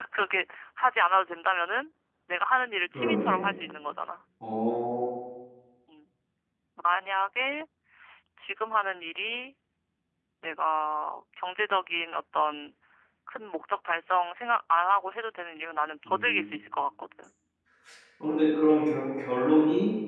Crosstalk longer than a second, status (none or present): none